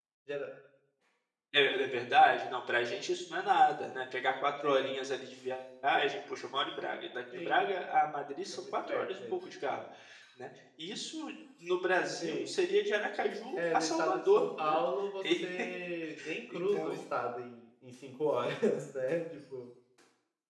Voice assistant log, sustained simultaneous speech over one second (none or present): present